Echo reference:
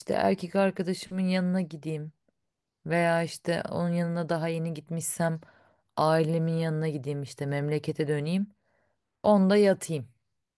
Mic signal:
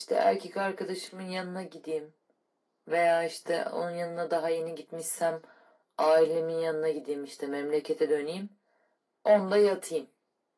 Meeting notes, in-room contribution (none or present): none